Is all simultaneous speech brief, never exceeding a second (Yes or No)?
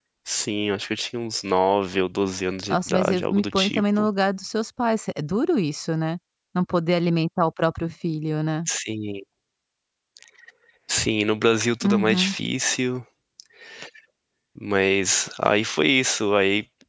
No